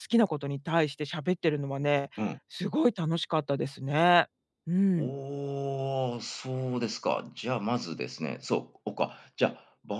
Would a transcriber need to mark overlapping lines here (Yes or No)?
No